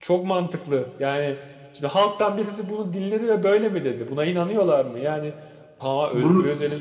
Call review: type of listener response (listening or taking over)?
listening